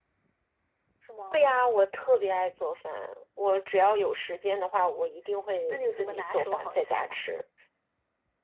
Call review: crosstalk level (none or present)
present